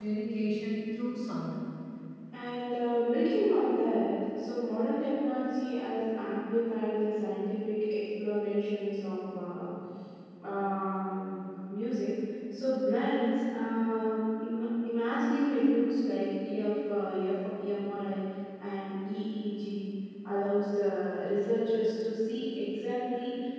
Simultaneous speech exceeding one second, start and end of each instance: none

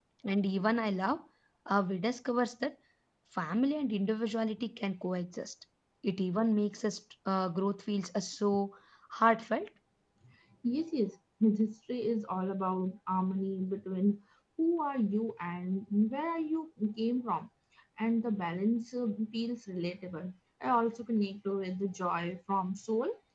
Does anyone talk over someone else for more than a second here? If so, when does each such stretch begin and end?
none

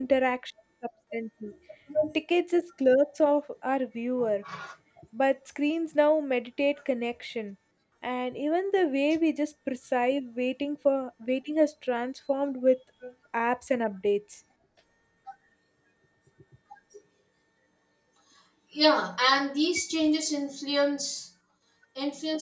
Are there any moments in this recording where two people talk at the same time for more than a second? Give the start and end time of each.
none

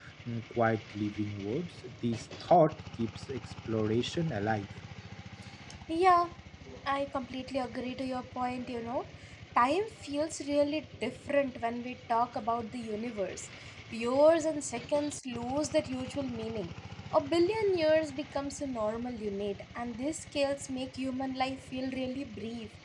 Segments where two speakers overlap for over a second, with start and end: none

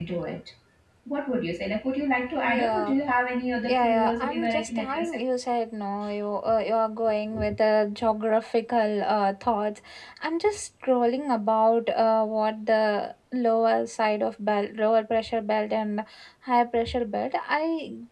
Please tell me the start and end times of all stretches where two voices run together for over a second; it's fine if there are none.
3.7-5.2

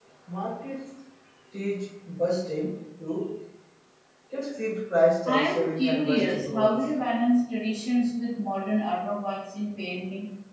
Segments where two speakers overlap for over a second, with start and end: 5.2-6.7

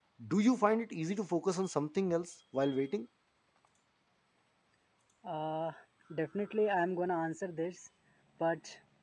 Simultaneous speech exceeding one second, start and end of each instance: none

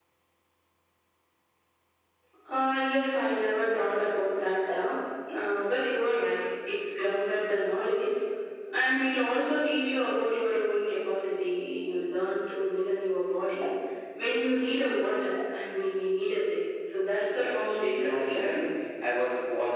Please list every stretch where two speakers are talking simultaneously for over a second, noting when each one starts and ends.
17.3-18.5

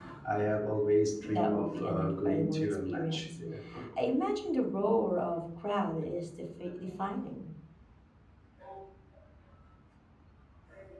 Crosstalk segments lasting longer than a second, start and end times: 1.2-3.4

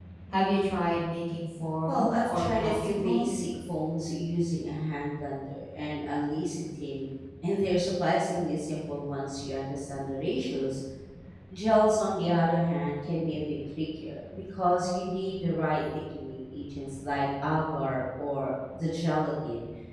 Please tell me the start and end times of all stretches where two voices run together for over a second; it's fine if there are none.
1.9-3.3

